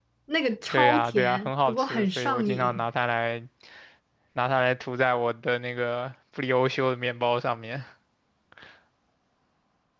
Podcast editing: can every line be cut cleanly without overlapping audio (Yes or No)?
No